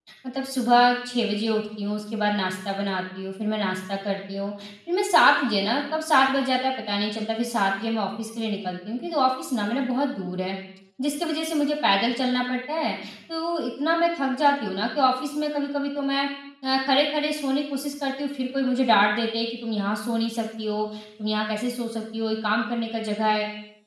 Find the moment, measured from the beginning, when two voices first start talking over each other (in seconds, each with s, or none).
none